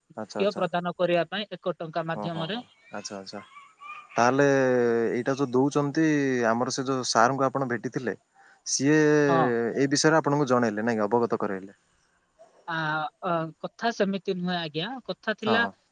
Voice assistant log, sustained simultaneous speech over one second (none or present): none